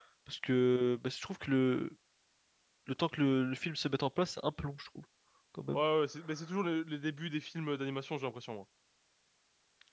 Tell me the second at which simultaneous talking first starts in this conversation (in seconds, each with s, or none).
none